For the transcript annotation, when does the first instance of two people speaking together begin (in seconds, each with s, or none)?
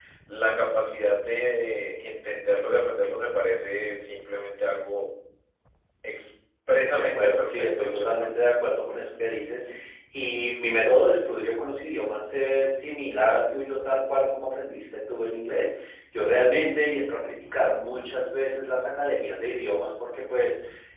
7.0 s